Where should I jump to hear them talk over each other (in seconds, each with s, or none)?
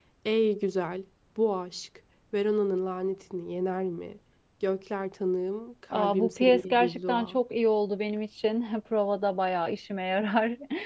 5.9 s